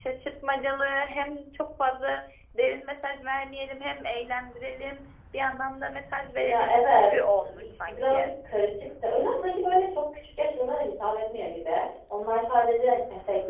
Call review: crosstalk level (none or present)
present